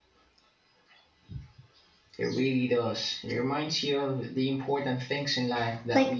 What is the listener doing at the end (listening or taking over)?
taking over